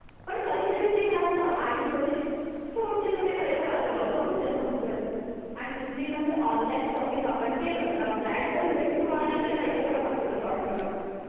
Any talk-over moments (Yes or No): Yes